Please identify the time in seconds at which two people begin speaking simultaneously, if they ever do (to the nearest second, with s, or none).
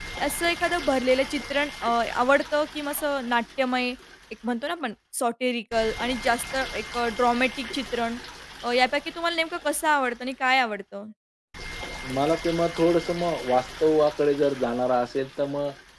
none